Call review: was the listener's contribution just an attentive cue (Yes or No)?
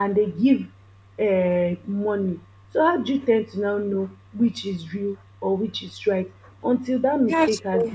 Yes